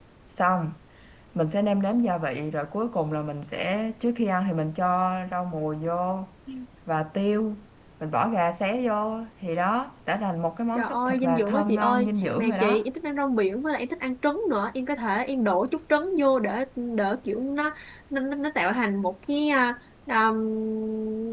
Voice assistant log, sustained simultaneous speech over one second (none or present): present